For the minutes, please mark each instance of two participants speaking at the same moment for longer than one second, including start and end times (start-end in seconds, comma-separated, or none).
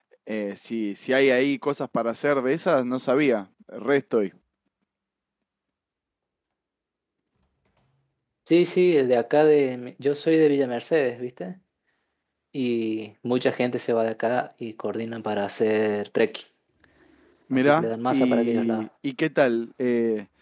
17.5-18.9